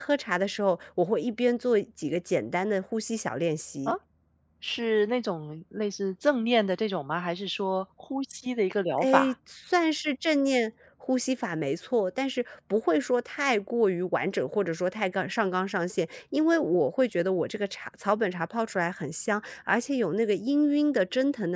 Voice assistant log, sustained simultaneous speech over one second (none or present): none